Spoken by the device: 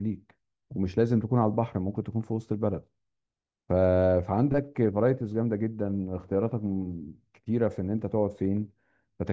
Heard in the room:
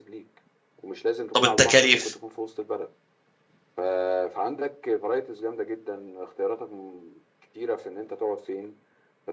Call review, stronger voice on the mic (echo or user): user